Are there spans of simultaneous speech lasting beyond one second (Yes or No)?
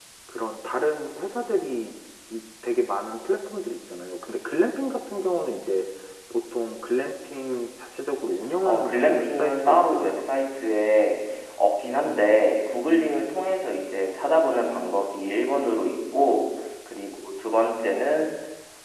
Yes